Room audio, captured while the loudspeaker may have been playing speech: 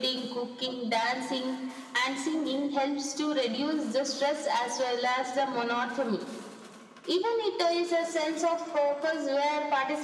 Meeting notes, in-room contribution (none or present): none